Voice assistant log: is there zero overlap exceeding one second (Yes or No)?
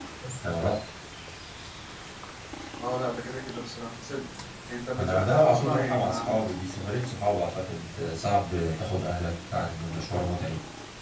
No